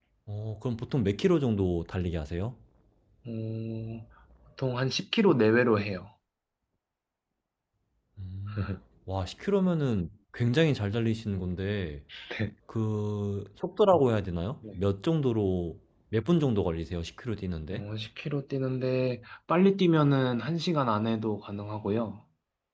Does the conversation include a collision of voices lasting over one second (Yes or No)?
No